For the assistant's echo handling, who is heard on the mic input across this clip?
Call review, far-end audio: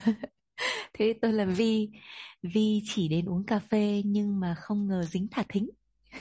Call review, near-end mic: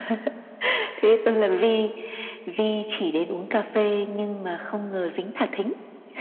echo only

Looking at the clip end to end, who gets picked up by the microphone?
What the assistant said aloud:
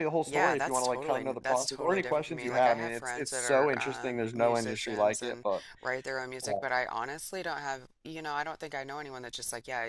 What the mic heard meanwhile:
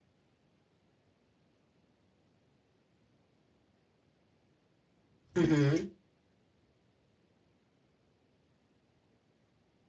user only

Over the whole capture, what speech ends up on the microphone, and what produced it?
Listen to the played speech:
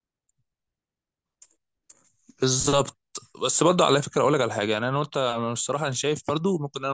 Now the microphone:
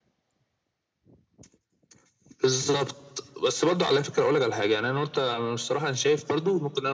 echo only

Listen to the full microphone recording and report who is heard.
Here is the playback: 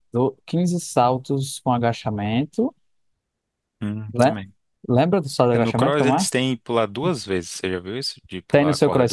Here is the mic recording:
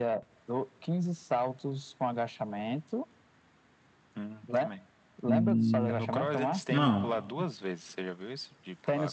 both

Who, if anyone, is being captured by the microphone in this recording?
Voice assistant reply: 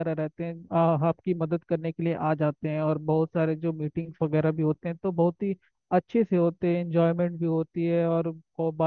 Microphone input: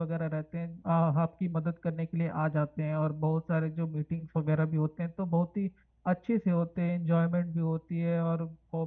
echo only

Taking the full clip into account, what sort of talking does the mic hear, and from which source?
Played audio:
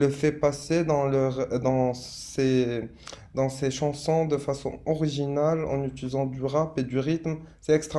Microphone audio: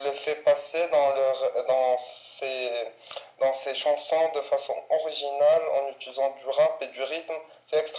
echo only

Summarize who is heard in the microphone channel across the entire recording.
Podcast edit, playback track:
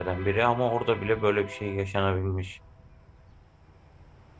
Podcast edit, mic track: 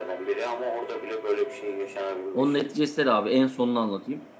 both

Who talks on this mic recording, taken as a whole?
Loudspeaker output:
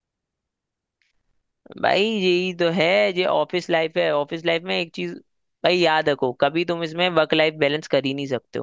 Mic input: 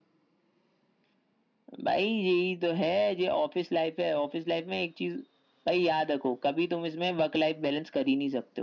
echo only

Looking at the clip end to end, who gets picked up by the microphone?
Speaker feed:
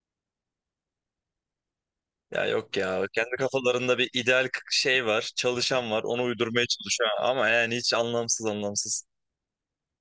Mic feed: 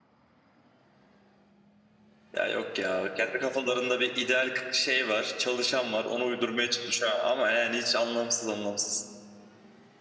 echo only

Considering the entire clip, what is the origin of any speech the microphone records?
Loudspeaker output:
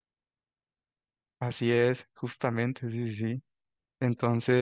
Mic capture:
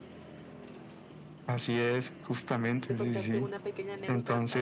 both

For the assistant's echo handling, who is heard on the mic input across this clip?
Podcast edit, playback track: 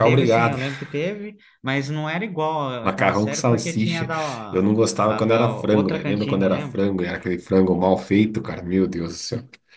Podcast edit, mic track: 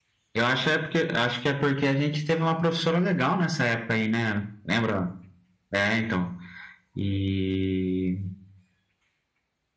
user only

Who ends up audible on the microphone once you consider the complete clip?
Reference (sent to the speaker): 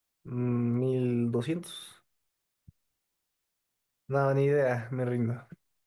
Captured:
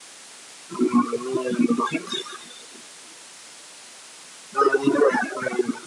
echo only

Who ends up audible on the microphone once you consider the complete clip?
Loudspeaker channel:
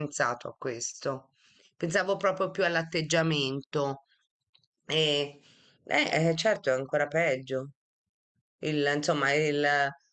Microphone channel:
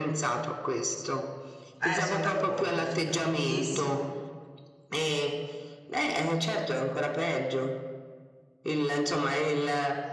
both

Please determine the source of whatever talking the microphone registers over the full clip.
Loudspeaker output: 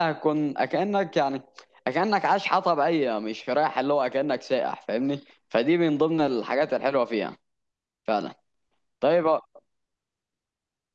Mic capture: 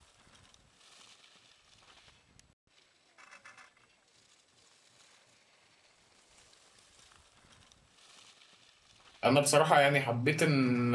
user only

